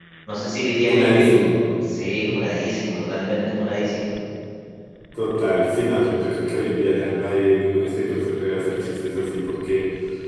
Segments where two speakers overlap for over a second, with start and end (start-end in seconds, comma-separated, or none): none